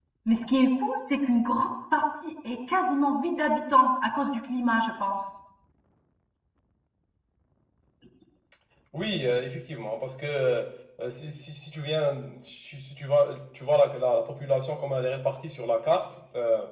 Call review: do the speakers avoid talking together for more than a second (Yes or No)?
Yes